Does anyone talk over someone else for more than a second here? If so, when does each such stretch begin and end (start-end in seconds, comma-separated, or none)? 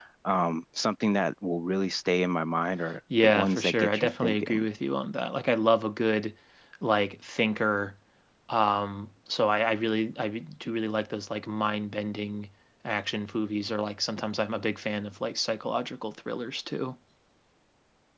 3.2-4.7